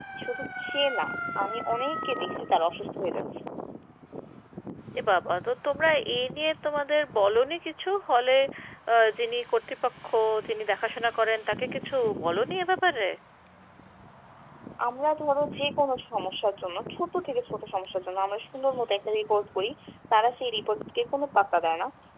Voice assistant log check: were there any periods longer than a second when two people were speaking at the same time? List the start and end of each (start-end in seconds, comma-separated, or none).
none